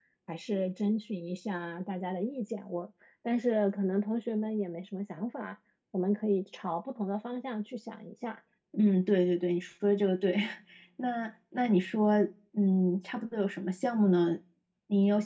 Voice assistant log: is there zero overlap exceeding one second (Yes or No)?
Yes